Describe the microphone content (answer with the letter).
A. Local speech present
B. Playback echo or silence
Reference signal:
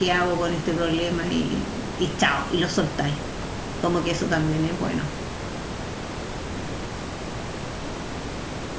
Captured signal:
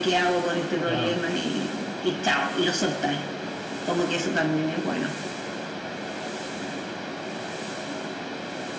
A